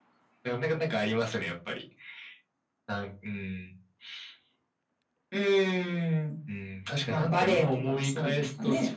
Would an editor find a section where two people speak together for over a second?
Yes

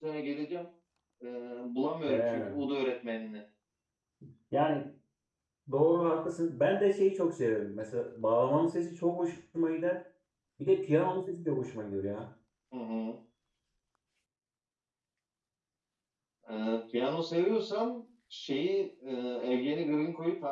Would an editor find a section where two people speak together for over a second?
No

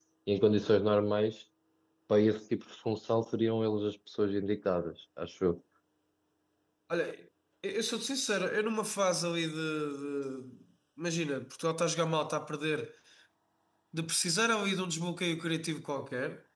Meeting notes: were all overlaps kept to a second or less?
Yes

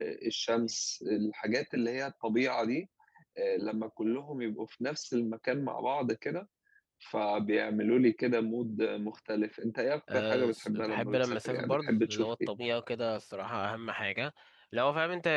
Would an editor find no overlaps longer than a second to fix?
No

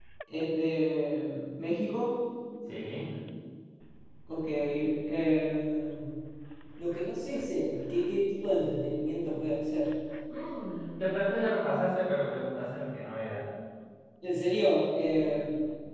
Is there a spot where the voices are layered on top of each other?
No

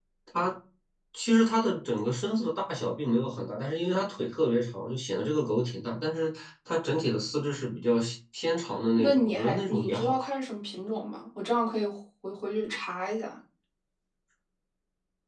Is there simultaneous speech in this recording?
Yes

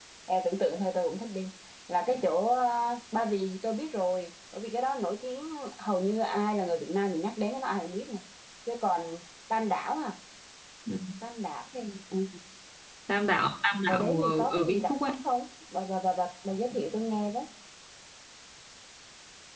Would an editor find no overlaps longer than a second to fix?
No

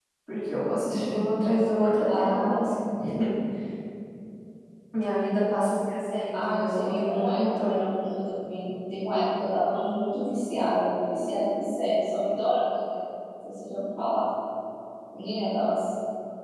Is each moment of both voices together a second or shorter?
No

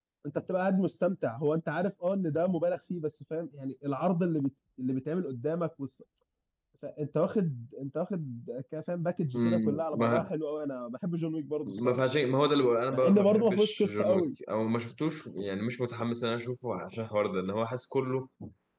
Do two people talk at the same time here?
Yes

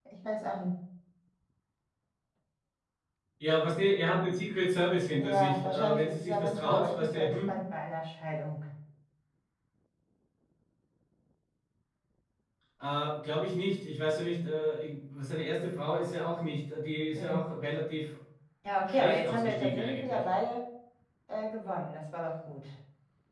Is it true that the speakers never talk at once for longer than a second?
No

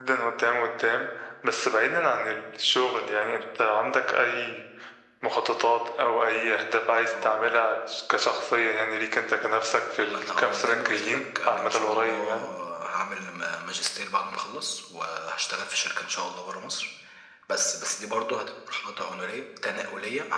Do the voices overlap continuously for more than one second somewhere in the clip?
Yes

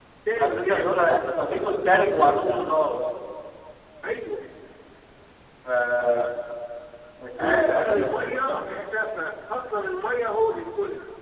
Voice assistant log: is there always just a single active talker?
No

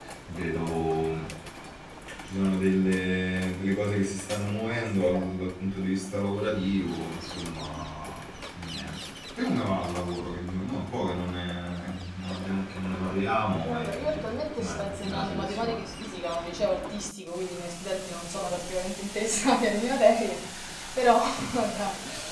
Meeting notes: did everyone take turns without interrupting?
No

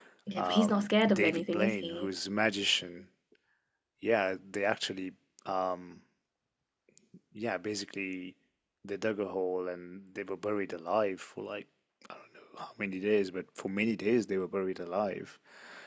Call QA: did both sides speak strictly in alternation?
No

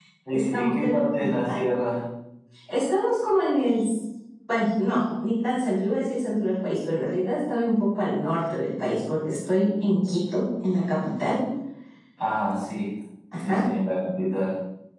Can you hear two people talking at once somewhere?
Yes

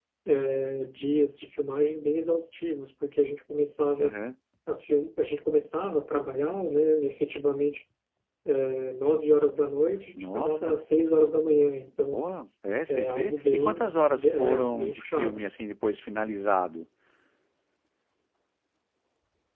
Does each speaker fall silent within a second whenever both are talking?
No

